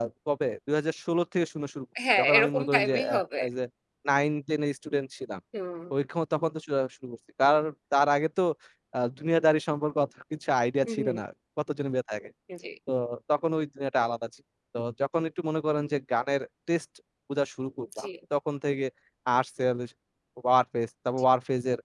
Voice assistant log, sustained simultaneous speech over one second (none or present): present